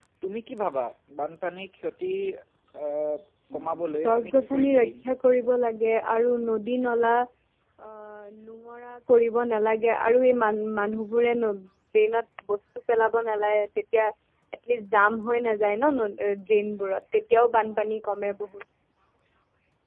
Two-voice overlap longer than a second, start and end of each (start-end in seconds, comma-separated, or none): 3.6-4.9